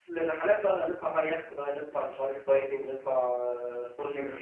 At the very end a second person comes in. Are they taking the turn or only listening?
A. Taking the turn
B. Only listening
A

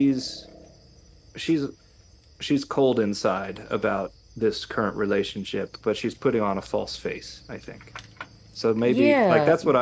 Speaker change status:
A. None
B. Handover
B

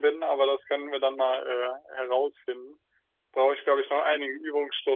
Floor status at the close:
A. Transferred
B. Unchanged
B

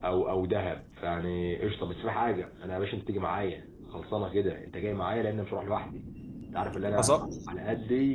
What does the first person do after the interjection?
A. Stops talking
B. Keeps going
B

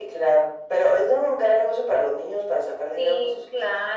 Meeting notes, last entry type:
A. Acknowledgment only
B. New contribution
B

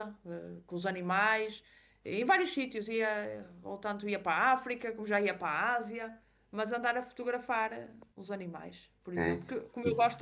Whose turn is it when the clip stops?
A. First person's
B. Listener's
A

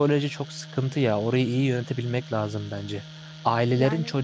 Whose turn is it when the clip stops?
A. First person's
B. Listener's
A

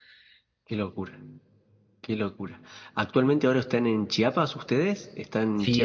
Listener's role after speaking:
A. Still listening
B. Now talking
B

